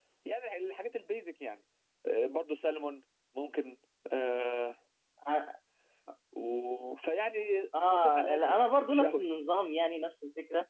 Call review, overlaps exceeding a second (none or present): present